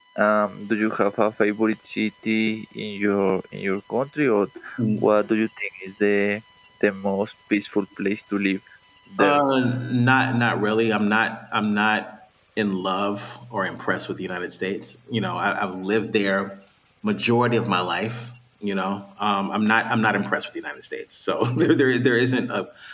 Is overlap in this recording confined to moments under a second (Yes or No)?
Yes